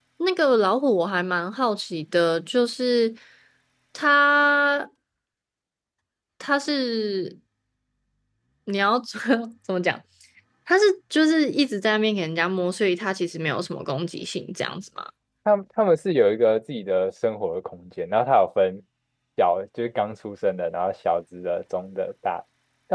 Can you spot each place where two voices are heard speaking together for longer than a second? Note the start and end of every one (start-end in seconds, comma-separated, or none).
none